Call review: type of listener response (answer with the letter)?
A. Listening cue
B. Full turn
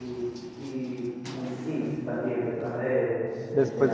B